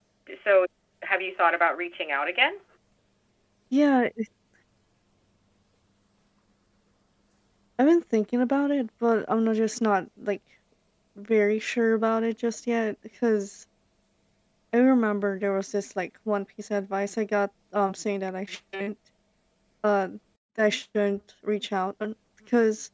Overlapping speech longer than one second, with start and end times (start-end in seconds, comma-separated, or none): none